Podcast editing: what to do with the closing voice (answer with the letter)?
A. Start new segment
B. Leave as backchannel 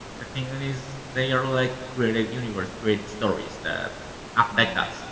B